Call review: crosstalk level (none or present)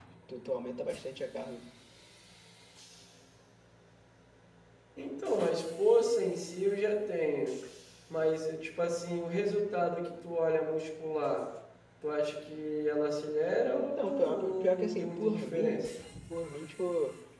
present